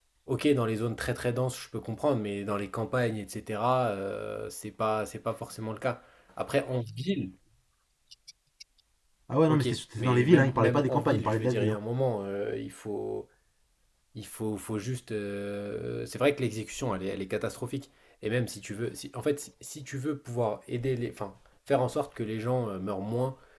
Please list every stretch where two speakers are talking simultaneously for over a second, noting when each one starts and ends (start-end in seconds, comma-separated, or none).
9.5-11.8